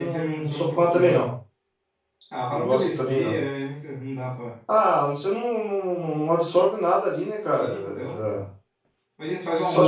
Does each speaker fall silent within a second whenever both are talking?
No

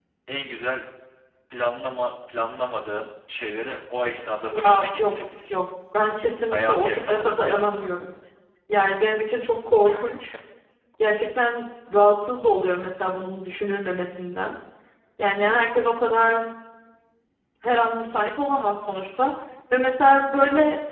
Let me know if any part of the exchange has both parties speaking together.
Yes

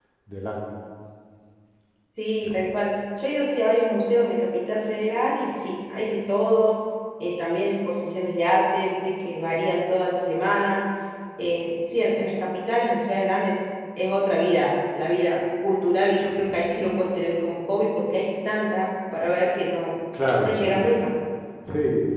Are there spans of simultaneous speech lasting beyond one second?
No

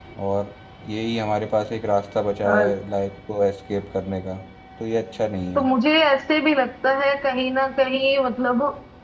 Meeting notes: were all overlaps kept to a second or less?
Yes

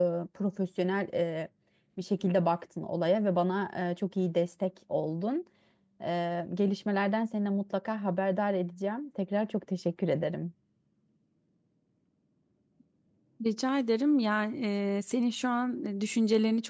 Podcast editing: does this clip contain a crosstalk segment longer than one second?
No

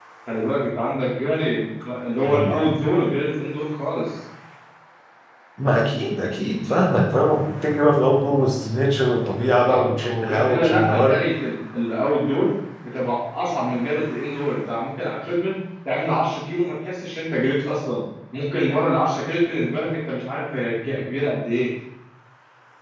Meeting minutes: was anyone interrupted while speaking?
Yes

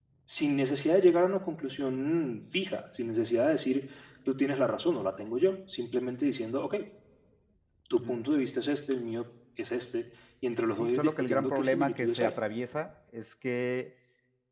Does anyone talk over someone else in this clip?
Yes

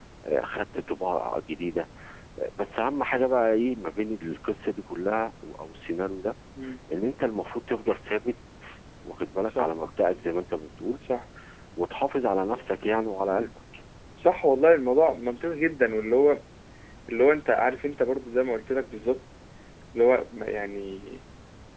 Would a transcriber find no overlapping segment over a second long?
Yes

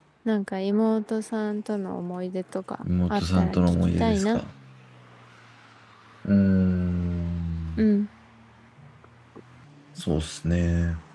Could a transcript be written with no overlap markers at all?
No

